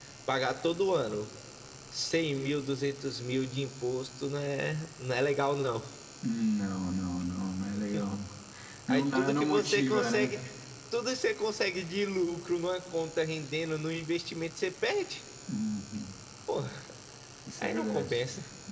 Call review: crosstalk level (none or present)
present